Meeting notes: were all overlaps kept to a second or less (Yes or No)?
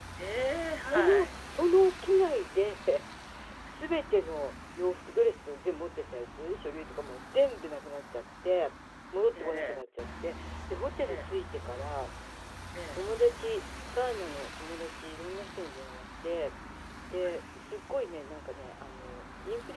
Yes